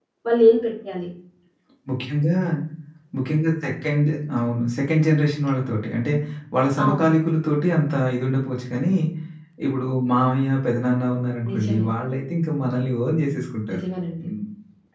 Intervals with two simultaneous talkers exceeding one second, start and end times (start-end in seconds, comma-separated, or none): none